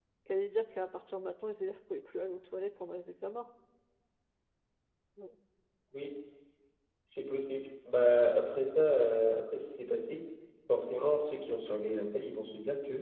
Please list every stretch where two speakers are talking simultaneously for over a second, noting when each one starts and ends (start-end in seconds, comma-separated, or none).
none